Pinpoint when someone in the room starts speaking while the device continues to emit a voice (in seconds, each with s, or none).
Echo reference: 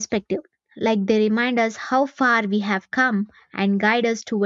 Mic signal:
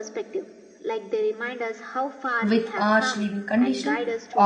2.4 s